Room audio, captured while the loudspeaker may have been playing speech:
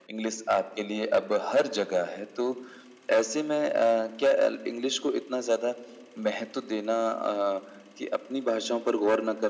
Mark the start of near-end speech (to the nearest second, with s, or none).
none